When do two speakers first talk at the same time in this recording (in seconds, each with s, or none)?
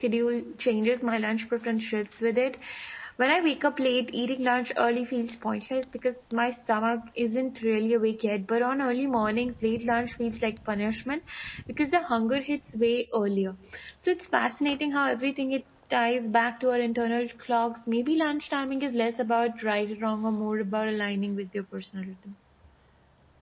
none